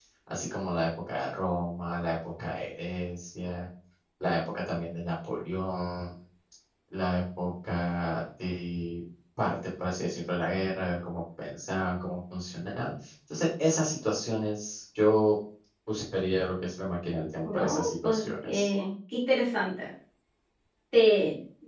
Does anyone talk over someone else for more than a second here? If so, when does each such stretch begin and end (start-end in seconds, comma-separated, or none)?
17.4-18.7